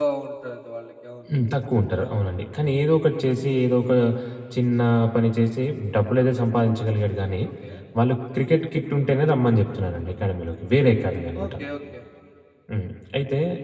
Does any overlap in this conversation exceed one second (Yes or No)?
No